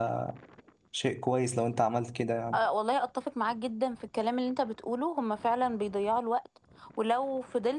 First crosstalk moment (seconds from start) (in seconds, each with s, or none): none